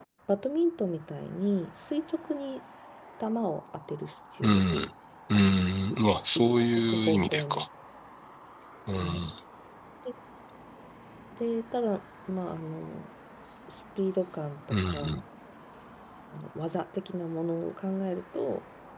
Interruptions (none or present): present